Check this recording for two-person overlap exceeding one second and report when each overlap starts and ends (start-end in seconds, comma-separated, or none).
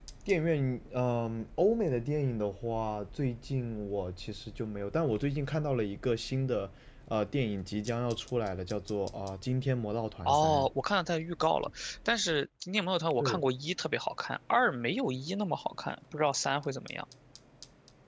none